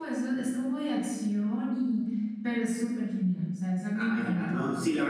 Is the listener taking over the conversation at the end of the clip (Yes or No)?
Yes